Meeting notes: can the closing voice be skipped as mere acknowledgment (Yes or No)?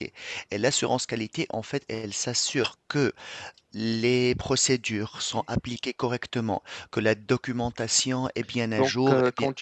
No